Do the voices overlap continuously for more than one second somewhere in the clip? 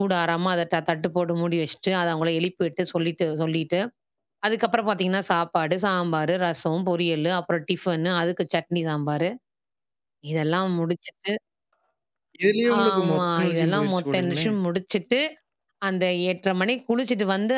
Yes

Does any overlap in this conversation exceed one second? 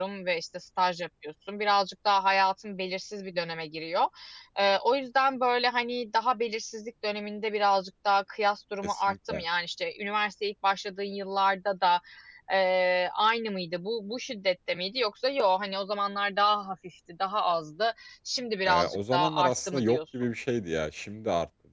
Yes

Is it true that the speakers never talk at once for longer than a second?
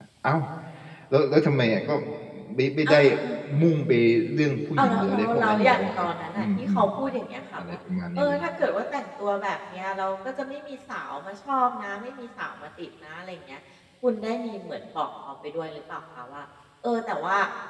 No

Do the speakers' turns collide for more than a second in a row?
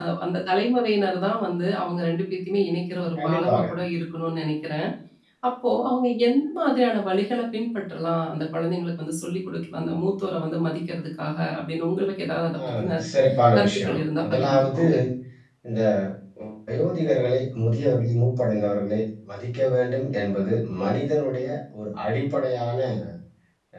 Yes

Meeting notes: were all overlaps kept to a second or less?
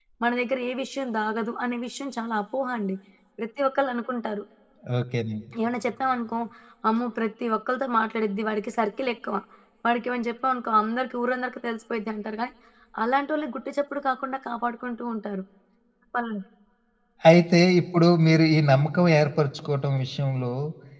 Yes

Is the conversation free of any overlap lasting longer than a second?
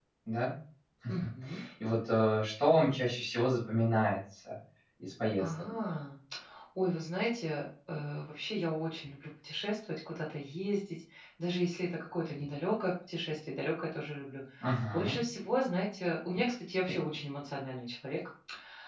Yes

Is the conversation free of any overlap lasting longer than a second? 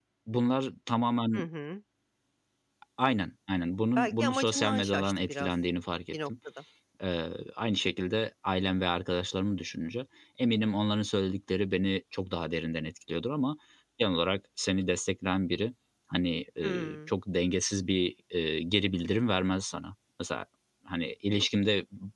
No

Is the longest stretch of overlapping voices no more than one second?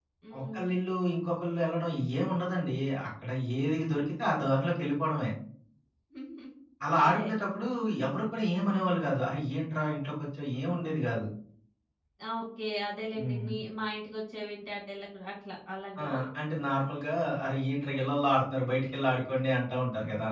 Yes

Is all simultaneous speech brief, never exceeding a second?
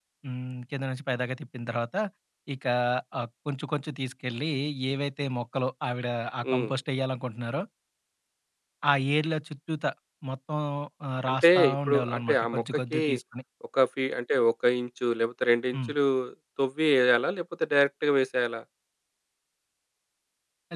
No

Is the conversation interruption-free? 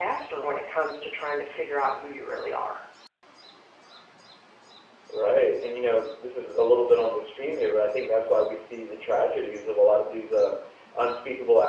Yes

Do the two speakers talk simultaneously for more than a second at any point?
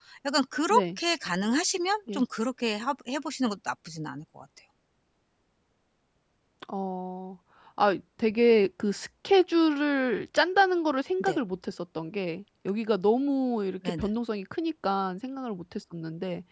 No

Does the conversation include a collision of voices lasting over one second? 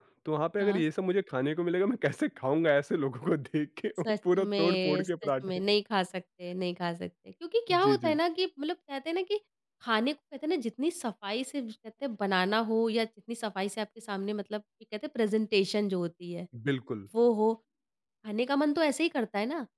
Yes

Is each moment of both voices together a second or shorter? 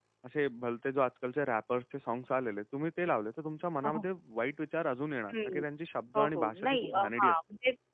No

